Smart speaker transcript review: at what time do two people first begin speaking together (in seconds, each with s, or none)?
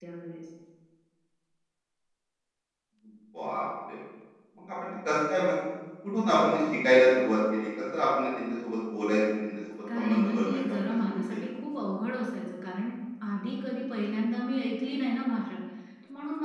9.9 s